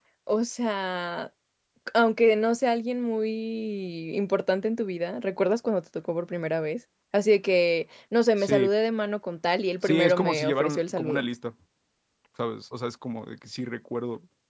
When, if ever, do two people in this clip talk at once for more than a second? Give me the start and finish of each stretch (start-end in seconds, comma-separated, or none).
9.8-11.2